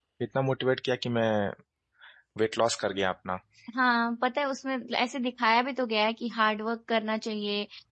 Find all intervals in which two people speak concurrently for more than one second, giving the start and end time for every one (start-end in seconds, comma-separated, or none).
none